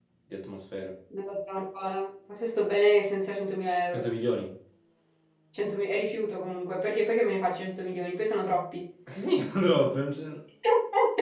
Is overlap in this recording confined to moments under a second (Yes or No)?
Yes